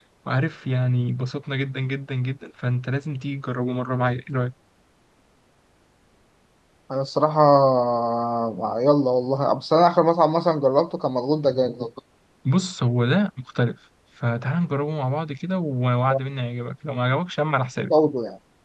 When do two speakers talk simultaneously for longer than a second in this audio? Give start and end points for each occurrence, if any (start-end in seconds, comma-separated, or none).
none